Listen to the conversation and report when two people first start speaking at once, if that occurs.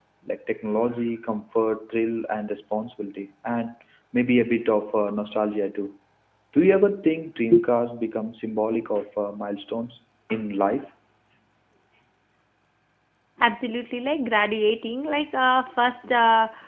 none

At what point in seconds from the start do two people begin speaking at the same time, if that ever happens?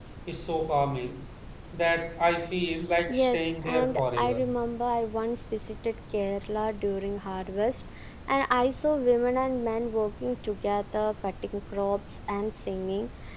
3.1 s

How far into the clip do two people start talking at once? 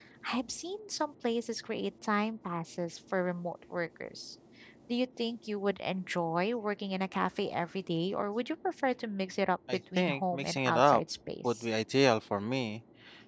9.7 s

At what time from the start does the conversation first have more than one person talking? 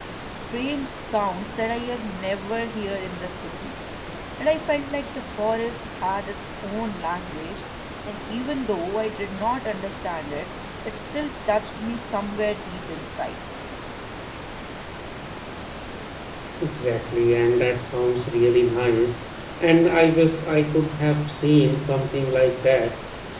none

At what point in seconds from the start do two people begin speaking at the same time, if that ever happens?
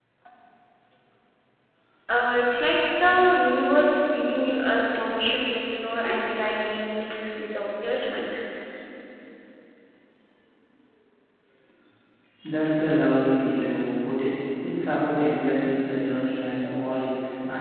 none

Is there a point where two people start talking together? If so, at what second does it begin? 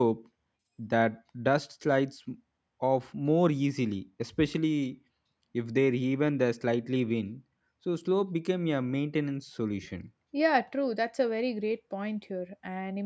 none

